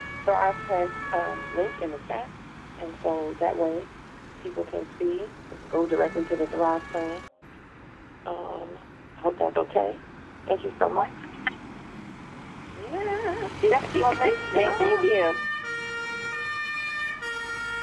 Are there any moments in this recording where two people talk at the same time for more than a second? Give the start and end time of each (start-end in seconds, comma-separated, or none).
13.7-15.1